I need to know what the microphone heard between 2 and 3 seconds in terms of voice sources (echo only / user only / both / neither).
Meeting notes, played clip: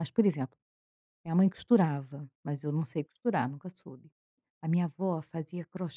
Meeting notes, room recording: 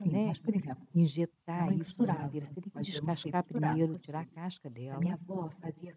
both